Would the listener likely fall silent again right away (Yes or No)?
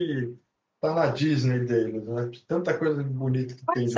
No